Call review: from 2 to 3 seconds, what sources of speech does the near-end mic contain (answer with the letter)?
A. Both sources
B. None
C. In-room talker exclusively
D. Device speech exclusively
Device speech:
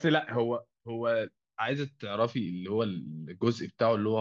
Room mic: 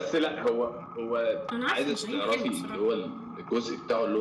A